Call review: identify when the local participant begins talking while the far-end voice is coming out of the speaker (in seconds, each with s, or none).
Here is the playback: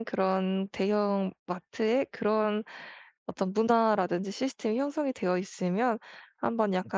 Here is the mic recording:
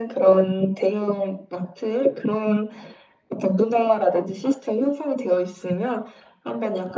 none